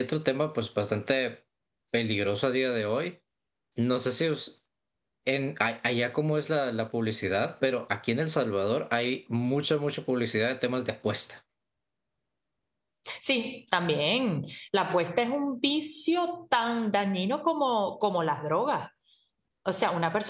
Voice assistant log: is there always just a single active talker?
Yes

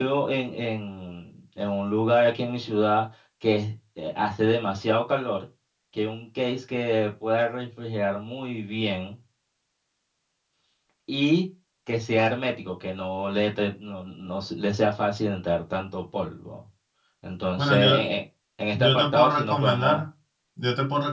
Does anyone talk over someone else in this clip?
Yes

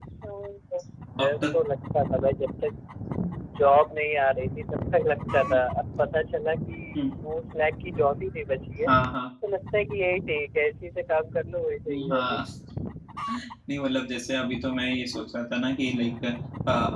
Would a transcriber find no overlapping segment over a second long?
Yes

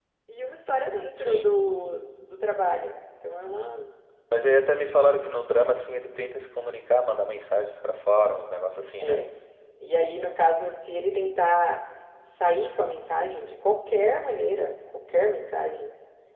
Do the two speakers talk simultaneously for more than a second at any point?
No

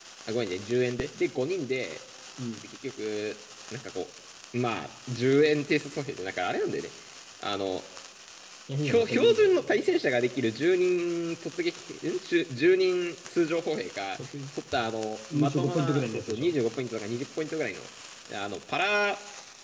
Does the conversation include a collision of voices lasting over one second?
Yes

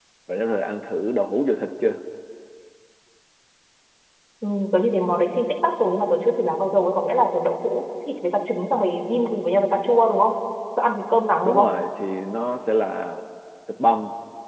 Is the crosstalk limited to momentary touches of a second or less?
Yes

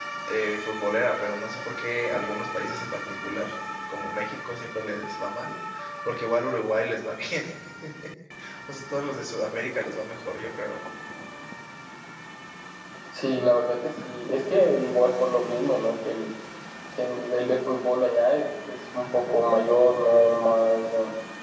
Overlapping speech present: No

